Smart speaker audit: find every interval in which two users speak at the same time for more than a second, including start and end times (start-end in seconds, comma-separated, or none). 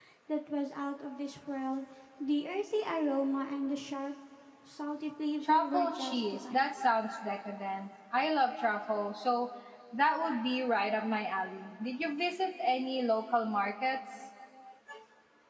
5.5-6.7